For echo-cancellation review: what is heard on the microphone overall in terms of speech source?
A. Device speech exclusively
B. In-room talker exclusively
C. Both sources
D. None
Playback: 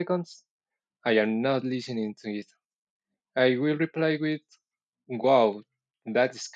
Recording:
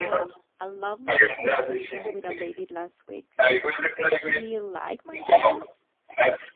C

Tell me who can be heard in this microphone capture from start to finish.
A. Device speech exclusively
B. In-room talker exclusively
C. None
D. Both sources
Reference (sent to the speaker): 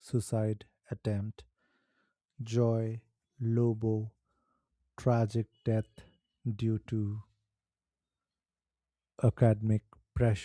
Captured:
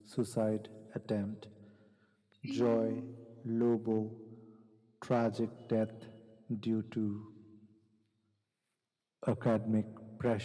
D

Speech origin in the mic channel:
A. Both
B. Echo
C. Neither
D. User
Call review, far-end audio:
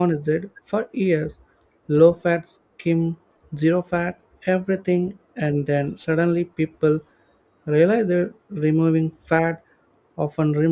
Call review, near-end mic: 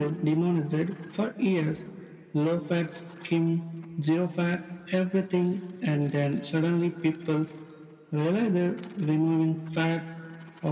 B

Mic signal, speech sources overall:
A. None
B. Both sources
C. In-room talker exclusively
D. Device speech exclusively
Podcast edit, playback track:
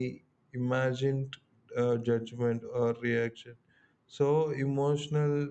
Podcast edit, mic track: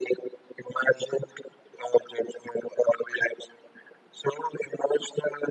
D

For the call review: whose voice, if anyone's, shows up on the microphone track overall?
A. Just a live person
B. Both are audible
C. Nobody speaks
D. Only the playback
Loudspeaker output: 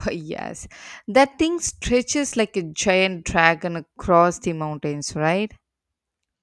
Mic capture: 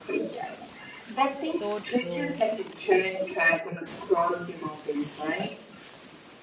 B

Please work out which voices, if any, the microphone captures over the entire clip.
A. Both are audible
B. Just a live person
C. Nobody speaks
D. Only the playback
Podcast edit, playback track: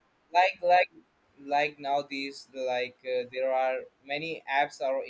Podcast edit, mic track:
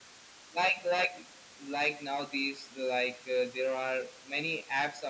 D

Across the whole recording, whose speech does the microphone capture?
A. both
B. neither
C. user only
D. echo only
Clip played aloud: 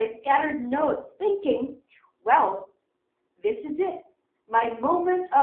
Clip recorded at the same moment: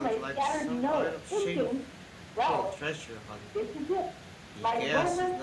A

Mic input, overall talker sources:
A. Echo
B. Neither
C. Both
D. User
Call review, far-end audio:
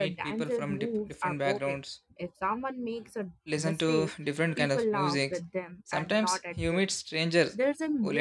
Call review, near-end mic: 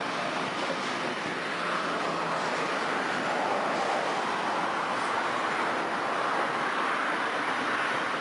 B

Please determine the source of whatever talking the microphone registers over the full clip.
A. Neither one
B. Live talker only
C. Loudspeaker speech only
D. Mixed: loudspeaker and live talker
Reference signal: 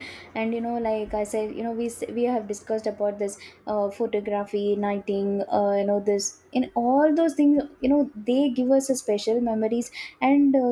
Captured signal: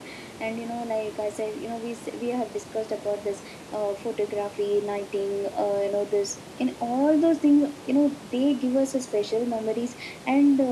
C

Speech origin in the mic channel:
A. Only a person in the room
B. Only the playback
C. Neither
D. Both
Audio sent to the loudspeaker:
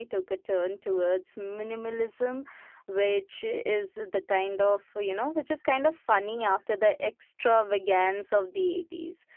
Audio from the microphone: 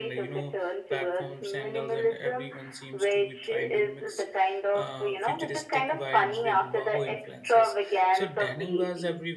D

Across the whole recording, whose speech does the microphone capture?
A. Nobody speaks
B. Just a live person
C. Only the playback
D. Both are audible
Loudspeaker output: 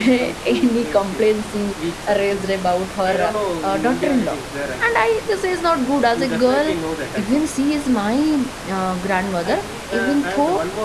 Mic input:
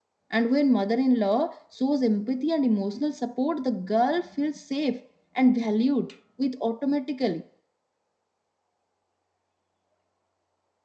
B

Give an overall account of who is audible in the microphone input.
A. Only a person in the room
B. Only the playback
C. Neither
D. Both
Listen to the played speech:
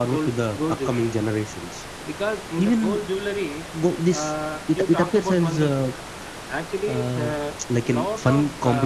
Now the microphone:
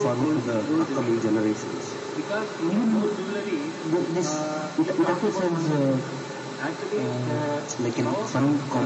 B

